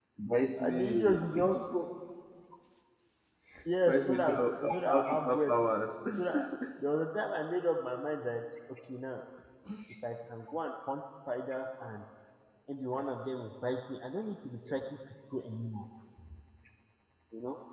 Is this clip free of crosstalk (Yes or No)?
No